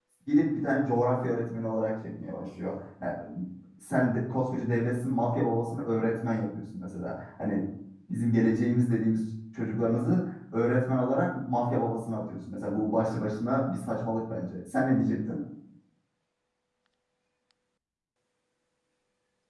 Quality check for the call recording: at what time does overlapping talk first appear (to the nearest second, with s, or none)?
none